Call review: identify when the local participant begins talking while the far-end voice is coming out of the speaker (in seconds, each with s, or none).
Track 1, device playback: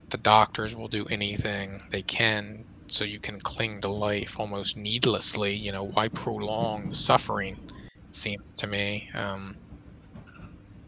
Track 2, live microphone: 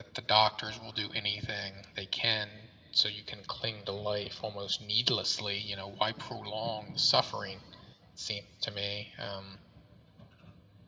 none